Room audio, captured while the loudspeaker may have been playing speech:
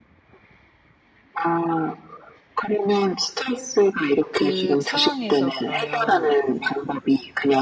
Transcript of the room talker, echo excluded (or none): 그 상황에서 그러면